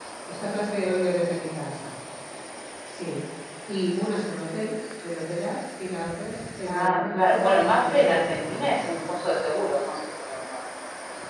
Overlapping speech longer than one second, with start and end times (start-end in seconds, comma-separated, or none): 6.7-8.9